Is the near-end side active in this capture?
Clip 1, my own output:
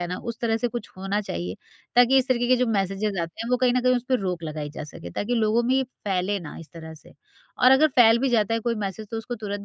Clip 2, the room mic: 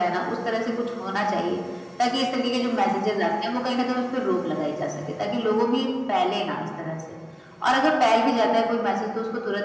No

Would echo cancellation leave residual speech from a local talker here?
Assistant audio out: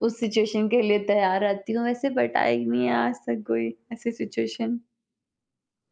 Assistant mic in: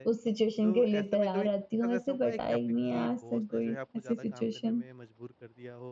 Yes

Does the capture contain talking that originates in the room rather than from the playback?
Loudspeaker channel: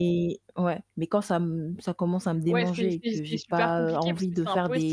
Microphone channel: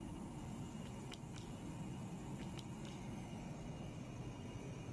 No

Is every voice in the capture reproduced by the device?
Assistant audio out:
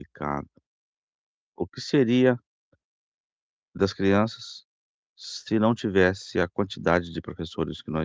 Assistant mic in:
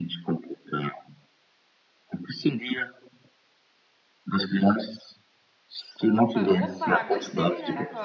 No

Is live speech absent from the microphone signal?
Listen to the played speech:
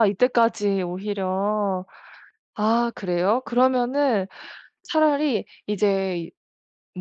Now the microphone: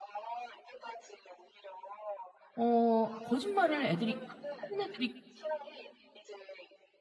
No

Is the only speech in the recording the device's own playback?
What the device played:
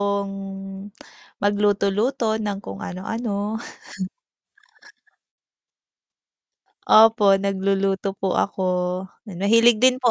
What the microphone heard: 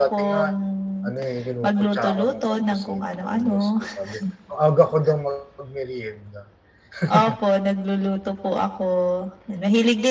No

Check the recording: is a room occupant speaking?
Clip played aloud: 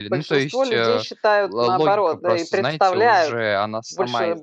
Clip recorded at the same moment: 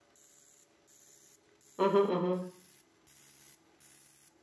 Yes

